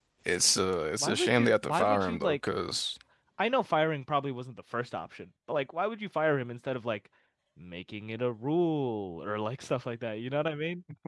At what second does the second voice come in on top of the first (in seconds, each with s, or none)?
1.0 s